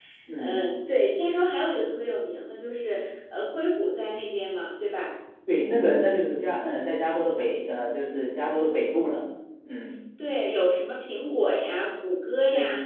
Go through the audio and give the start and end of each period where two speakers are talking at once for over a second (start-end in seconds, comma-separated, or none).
none